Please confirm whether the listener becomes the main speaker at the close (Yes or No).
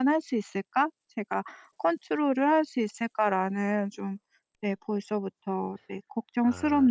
Yes